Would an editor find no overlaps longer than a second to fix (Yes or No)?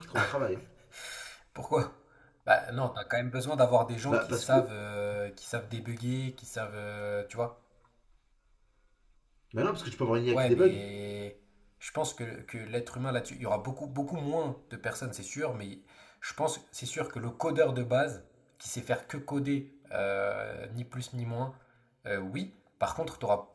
Yes